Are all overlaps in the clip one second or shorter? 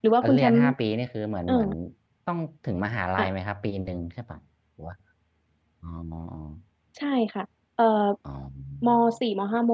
Yes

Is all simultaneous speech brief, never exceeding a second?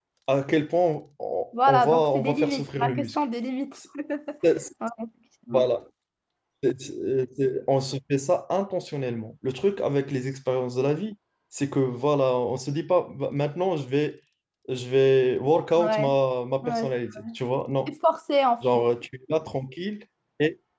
No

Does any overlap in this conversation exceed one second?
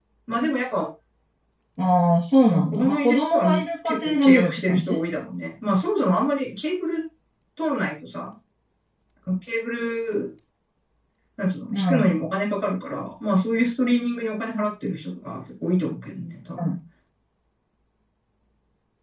Yes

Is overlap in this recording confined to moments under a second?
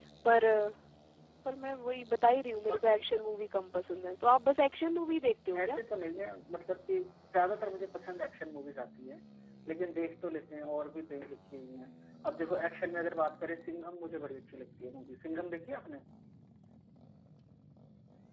Yes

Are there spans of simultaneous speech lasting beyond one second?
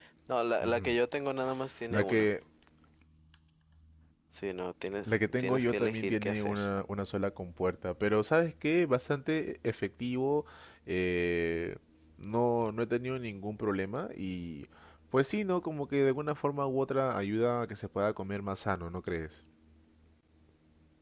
Yes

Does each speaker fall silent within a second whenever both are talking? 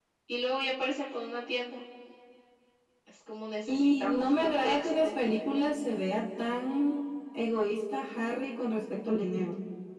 No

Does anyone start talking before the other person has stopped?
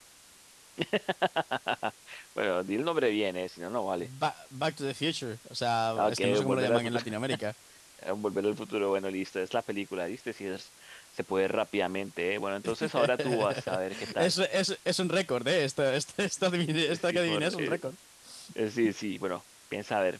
Yes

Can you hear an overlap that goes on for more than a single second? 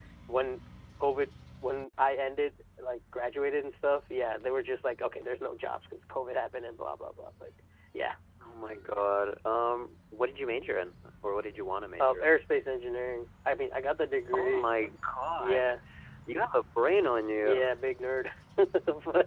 No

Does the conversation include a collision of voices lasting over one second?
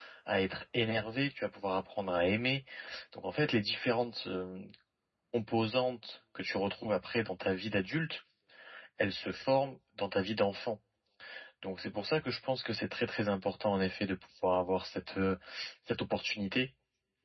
No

